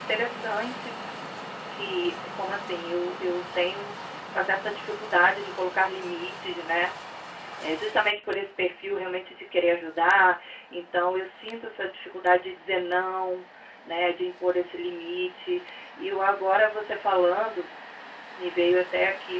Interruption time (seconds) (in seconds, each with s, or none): none